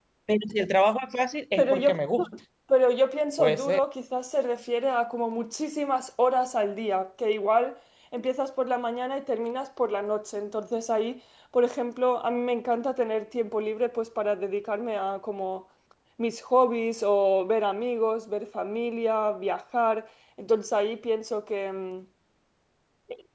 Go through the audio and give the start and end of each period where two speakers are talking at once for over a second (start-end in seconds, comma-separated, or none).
none